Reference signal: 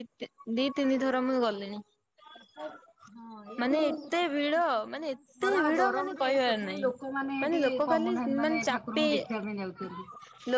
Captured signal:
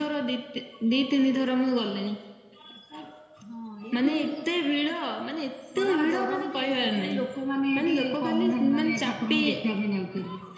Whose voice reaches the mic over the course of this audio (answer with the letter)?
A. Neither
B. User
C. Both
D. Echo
D